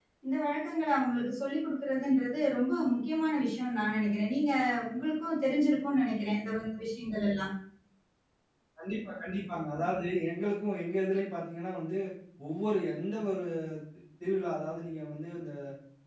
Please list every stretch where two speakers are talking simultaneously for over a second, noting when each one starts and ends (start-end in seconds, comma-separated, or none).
none